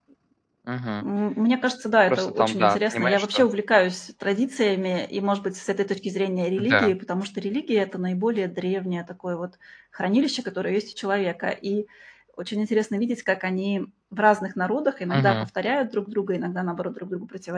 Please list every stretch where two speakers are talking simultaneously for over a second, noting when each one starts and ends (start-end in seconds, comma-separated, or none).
2.1-3.4